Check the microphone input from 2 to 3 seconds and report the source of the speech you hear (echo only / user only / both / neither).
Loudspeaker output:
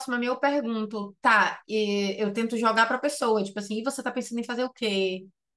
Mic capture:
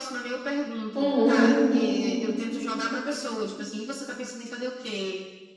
echo only